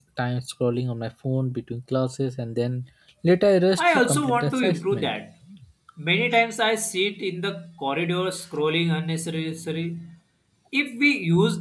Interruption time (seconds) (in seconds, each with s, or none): 3.8 s